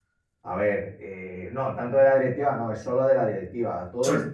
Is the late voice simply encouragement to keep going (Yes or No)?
Yes